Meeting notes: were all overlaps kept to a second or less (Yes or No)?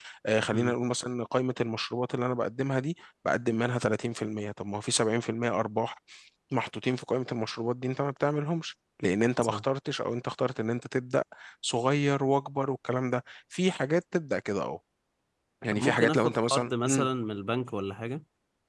No